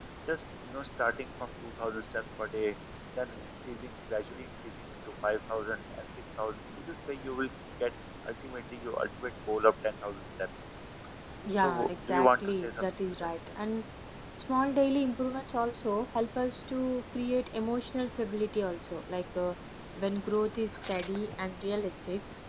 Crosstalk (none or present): present